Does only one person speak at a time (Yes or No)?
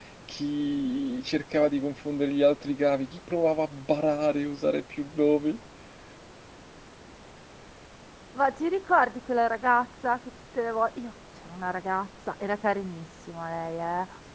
Yes